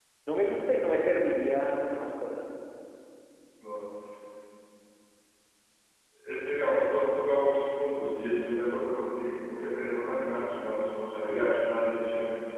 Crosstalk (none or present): none